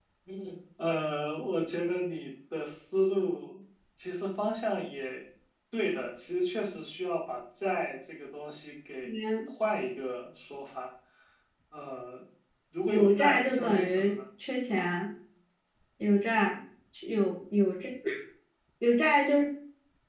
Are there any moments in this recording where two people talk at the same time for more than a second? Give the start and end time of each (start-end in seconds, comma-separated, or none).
12.9-14.1